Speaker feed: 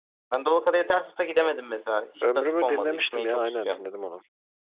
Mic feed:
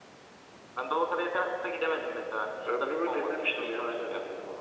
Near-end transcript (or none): none